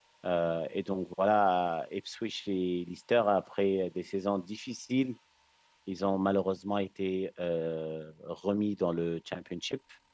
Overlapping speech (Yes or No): No